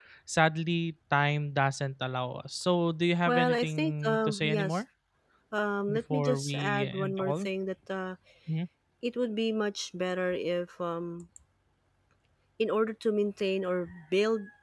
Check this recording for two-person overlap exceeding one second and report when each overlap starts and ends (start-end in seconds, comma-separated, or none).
3.3-4.8, 5.9-7.5